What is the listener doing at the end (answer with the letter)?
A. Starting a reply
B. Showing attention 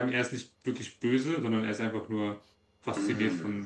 A